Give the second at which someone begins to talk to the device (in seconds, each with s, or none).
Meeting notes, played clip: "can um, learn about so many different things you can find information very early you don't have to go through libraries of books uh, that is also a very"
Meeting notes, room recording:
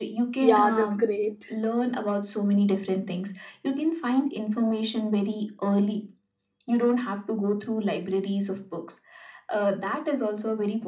0.4 s